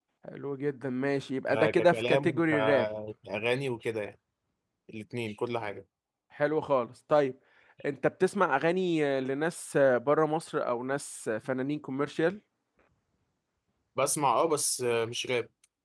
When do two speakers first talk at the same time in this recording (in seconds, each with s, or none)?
1.5 s